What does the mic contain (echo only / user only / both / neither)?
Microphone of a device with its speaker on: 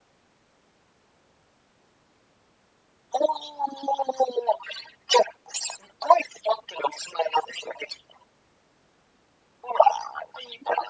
echo only